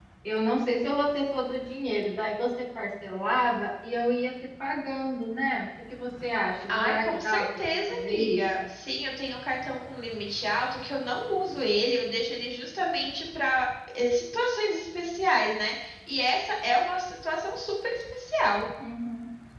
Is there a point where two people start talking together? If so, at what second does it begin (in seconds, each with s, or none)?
6.7 s